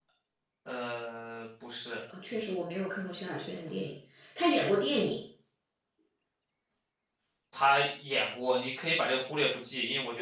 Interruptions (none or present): none